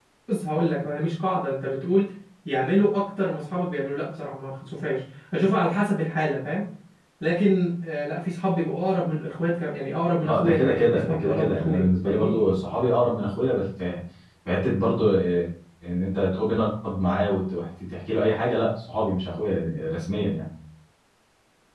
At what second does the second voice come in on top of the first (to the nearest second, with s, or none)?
10 s